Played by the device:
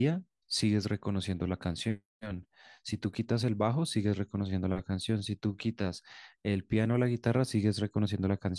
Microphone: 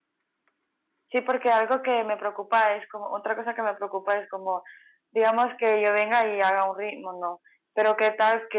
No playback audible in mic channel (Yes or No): Yes